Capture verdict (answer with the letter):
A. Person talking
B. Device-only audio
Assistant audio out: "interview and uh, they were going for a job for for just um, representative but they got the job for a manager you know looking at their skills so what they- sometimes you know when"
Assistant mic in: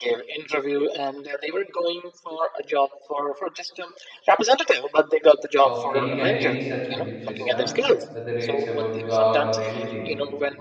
A